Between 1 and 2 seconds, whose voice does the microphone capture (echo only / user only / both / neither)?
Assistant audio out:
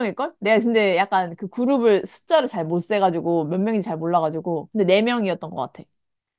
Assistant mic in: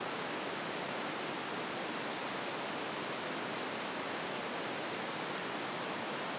neither